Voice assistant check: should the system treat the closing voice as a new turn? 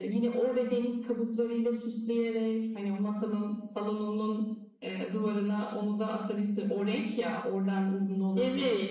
Yes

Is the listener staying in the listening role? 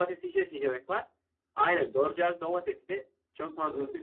No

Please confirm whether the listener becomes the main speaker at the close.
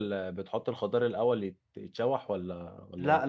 Yes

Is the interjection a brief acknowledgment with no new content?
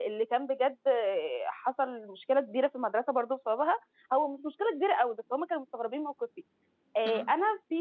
Yes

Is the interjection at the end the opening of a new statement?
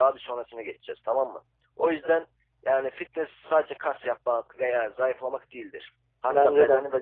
No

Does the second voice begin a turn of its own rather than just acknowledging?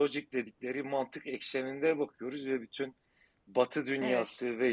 No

